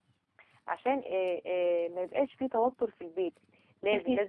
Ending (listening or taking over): listening